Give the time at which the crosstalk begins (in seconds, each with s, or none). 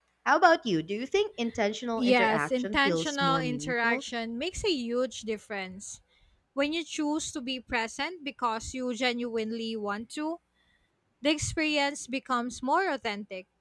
2.0 s